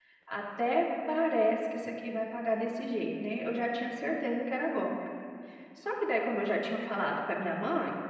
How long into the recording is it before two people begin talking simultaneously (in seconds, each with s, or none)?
none